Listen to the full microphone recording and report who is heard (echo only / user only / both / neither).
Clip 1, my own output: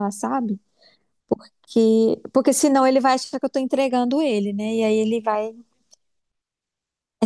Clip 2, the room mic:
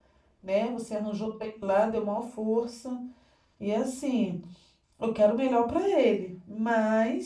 user only